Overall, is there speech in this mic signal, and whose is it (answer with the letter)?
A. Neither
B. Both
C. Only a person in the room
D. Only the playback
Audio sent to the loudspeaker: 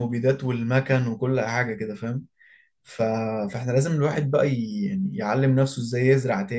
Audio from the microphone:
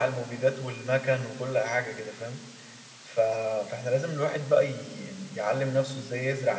D